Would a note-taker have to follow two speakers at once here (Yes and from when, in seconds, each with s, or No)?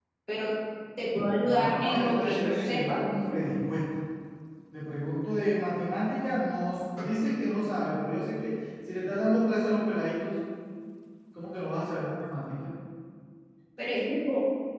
Yes, from 1.5 s